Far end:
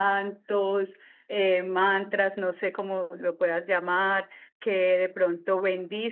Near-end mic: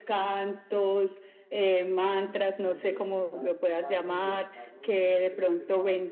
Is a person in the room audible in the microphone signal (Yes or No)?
Yes